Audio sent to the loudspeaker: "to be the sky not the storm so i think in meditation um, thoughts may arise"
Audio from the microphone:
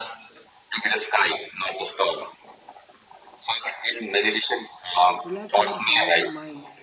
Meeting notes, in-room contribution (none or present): present